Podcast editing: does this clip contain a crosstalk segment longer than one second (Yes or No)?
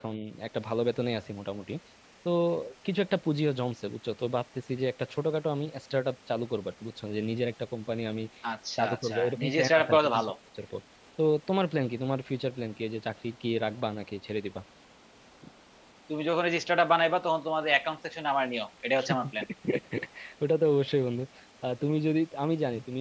Yes